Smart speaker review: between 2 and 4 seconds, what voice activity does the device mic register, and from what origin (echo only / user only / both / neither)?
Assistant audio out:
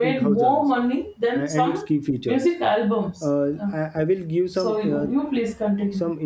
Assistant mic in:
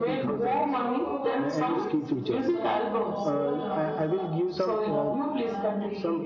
both